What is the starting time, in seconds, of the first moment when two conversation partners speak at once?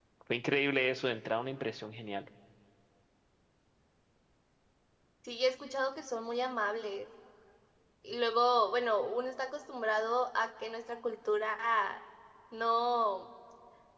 none

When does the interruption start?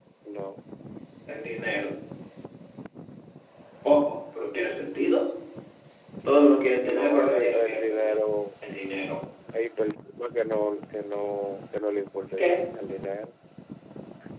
6.8 s

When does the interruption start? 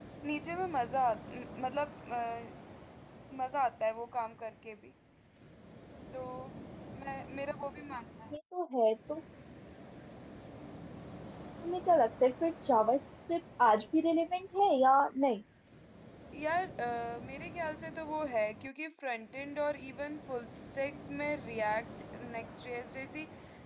none

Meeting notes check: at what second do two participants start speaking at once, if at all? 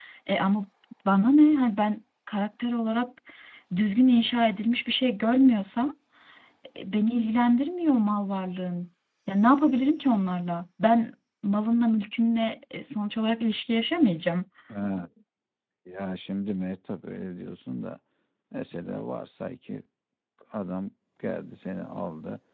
none

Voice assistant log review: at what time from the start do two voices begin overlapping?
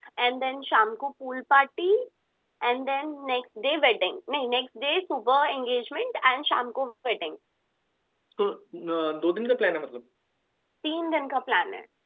none

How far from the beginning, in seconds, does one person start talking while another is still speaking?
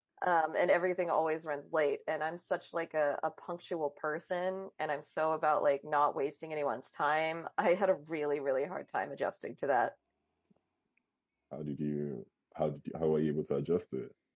none

